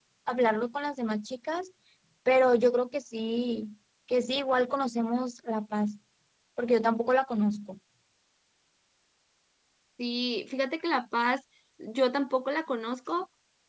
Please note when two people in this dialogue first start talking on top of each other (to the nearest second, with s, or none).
none